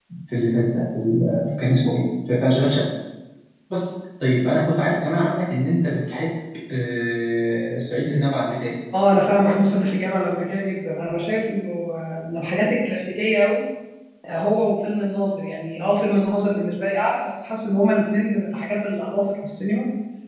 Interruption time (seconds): none

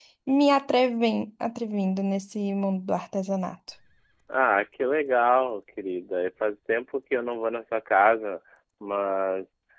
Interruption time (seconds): none

